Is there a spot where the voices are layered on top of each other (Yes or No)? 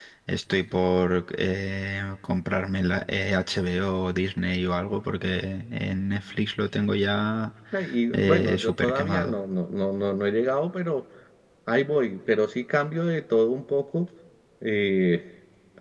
Yes